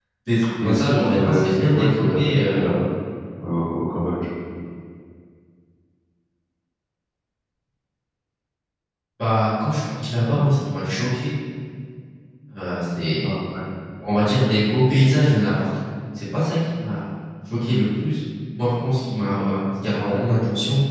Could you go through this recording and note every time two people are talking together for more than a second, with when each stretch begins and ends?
0.6-2.6

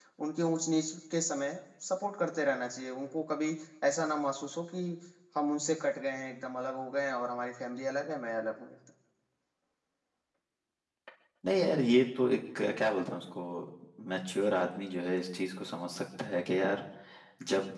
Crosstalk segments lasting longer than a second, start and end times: none

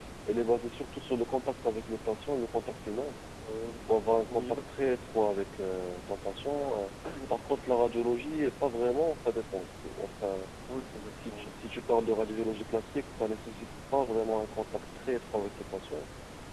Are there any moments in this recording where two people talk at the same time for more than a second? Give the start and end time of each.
none

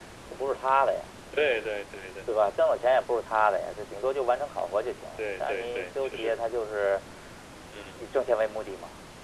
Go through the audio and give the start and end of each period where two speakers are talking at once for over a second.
5.2-6.4

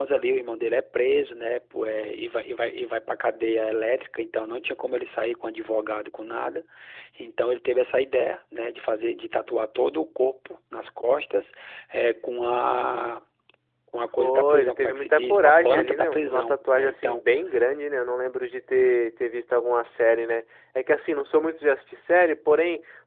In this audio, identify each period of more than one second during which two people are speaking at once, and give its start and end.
14.2-17.2

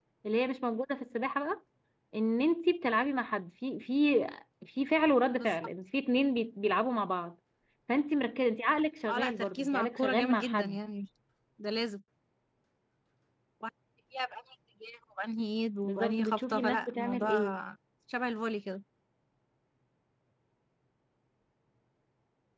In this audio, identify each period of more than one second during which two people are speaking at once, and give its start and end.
9.1-10.8, 15.8-17.3

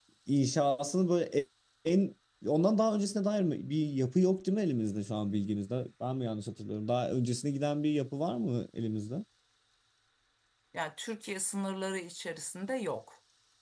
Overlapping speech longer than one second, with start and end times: none

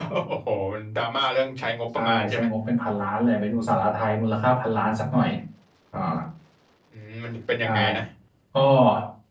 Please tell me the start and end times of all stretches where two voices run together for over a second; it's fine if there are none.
none

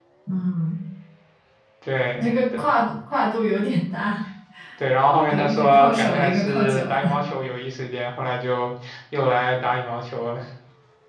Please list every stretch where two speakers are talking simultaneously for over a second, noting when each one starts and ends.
5.3-7.2

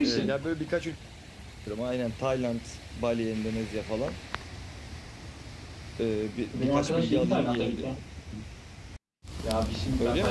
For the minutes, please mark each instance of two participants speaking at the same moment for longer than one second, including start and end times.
6.5-7.7

